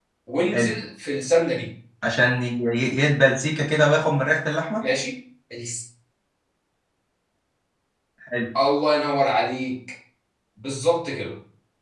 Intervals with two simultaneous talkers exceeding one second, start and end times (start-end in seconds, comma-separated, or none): none